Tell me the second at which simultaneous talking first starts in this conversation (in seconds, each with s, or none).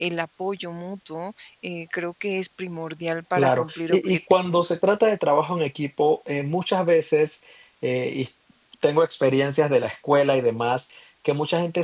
3.4 s